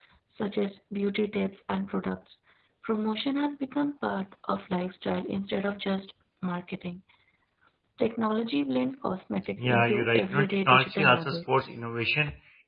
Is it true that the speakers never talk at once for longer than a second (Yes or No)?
No